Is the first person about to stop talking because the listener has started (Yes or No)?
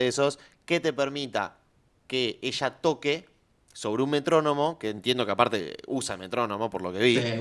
No